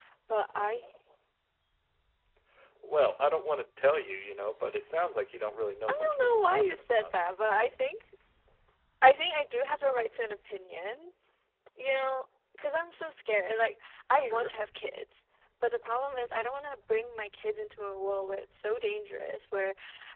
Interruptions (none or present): present